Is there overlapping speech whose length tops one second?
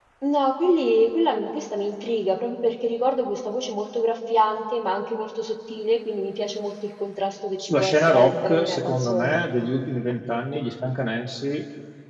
Yes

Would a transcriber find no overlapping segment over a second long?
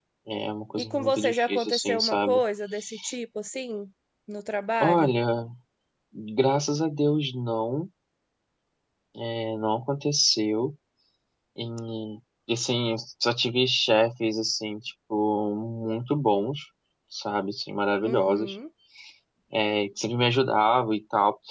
No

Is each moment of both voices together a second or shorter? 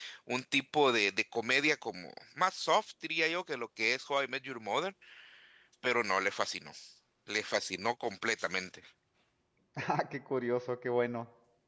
Yes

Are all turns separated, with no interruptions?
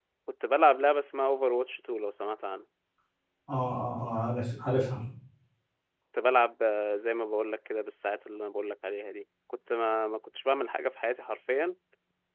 Yes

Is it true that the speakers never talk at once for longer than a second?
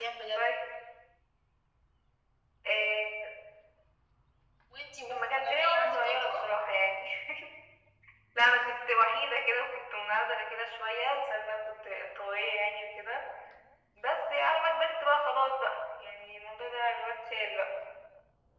No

